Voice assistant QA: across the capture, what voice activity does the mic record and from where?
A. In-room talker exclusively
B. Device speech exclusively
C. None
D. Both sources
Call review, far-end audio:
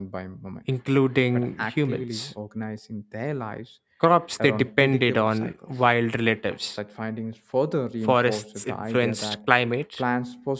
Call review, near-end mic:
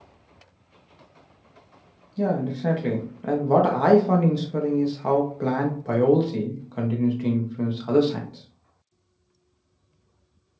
A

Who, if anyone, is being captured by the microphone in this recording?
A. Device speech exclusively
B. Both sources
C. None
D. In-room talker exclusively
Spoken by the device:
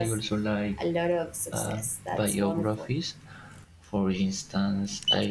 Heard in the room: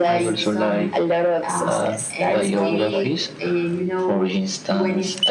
B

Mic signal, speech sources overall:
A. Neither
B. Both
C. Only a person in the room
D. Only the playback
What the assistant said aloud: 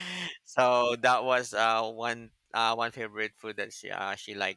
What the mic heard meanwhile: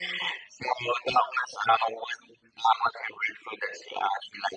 D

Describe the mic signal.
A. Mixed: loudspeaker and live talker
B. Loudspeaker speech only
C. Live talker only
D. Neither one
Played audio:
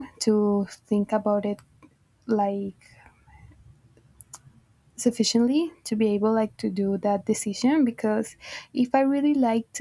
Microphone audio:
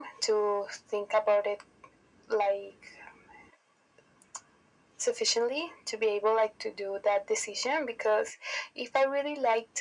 B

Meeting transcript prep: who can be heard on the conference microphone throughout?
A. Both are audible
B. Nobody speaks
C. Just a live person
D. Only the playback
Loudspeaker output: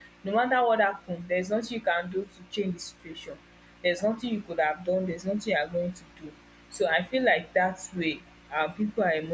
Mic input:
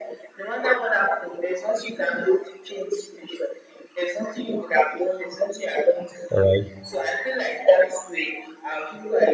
A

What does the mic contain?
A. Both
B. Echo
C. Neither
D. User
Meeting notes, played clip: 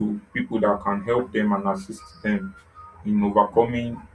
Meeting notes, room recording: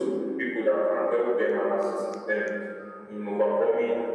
B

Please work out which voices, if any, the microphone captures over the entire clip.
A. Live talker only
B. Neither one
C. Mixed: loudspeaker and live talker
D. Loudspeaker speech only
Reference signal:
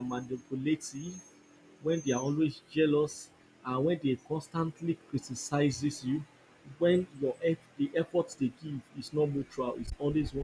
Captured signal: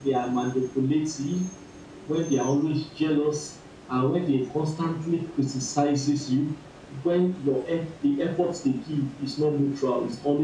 D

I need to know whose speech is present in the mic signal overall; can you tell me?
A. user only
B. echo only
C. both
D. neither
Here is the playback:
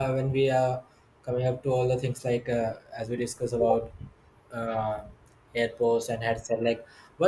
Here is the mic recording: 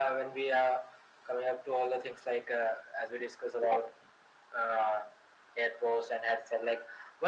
B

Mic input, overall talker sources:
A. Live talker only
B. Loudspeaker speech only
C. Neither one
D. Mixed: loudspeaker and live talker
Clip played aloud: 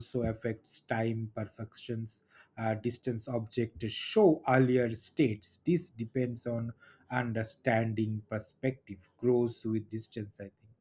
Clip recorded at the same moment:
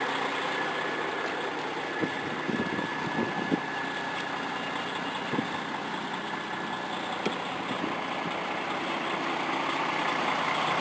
C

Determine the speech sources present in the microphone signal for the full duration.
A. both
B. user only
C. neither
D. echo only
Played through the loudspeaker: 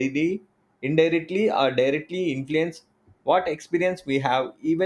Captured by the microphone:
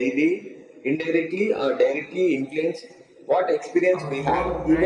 A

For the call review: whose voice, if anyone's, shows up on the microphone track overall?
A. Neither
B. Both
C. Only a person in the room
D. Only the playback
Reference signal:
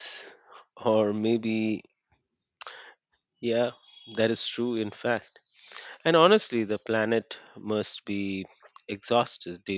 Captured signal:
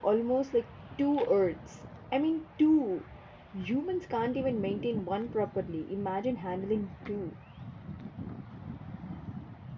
C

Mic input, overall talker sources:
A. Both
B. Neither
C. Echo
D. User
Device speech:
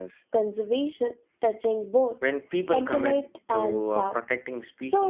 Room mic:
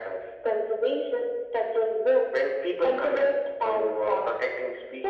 C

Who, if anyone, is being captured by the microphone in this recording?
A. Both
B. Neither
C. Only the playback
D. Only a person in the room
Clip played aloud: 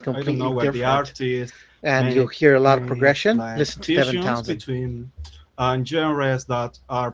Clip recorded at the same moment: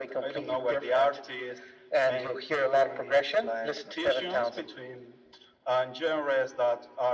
C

